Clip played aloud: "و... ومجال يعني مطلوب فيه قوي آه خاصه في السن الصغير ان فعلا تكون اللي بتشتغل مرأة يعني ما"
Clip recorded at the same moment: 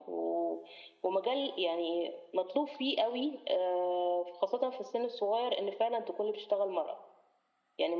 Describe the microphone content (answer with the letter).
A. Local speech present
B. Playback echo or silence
B